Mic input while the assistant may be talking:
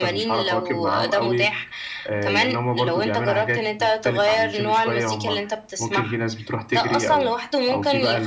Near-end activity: none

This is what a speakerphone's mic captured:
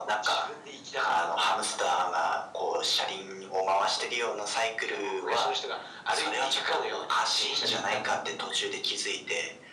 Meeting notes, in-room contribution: present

